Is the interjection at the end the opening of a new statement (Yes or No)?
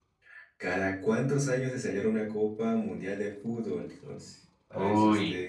No